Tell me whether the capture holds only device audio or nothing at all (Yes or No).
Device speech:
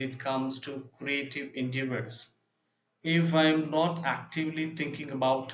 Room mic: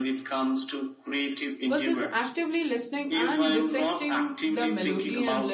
No